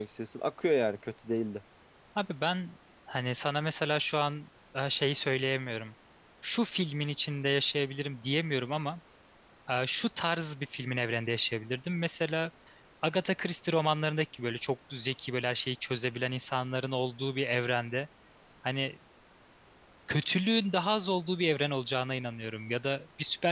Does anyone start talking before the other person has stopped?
No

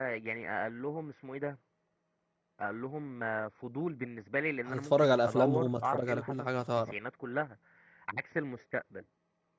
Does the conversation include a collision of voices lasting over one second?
Yes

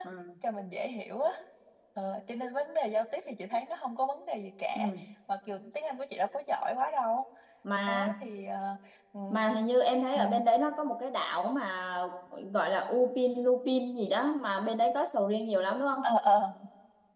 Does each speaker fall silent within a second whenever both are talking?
Yes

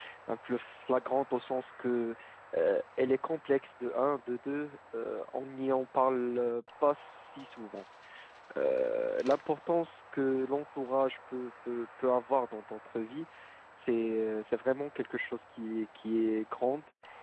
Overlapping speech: No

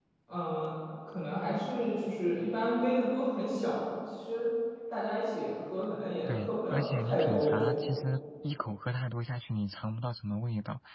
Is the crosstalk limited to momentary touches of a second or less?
No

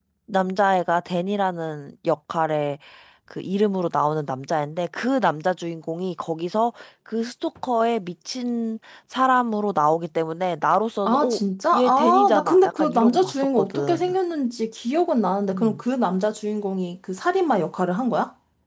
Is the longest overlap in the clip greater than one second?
Yes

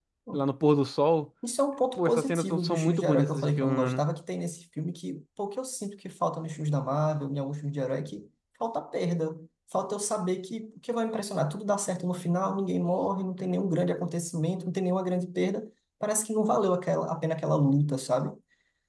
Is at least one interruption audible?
Yes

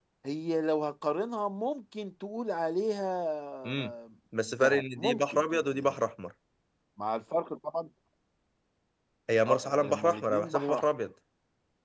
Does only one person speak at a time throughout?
No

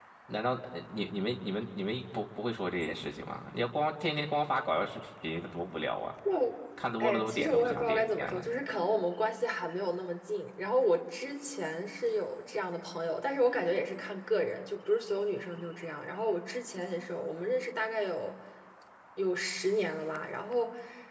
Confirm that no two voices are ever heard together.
No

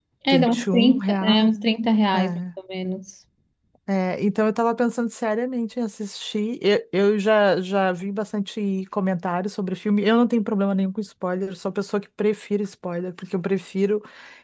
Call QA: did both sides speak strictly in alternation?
No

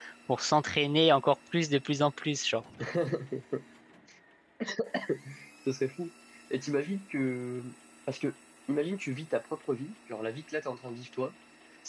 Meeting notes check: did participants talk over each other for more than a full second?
No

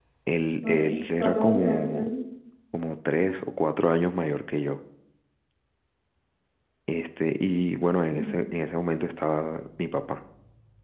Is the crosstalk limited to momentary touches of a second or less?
No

